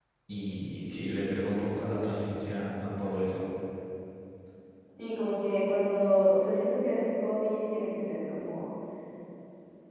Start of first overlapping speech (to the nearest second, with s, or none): none